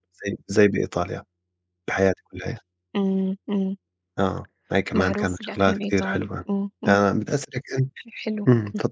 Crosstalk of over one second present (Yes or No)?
Yes